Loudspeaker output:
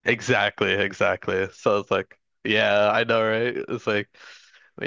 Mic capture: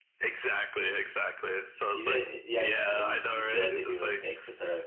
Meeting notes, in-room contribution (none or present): present